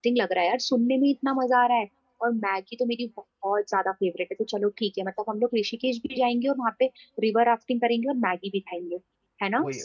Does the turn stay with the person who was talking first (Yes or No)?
No